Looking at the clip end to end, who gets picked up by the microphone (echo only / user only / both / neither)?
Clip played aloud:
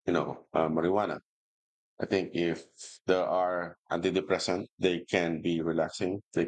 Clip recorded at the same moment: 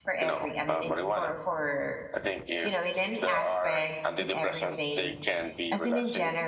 both